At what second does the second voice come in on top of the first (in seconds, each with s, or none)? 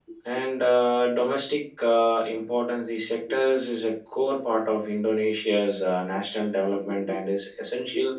none